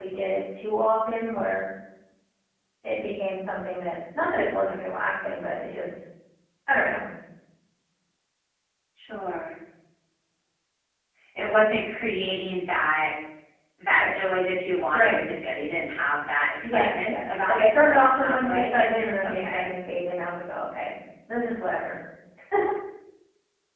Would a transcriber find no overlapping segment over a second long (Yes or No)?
No